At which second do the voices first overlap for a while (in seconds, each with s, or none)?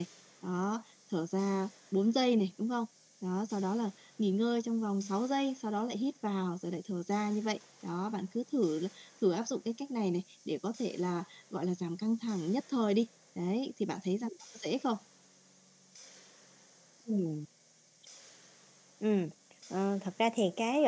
none